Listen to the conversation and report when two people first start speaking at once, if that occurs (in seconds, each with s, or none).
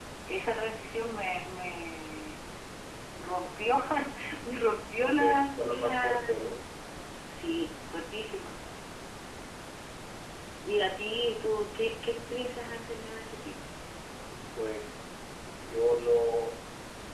5.2 s